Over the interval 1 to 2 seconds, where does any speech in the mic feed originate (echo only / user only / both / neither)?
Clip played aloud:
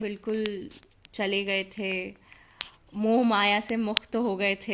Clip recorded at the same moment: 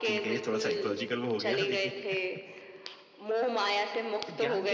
both